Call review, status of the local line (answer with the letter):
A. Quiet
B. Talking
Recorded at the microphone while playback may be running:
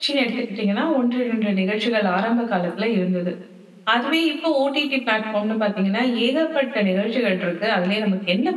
B